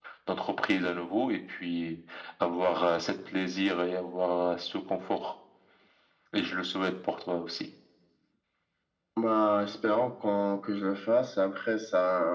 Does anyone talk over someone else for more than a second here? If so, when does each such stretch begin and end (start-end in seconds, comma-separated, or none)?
none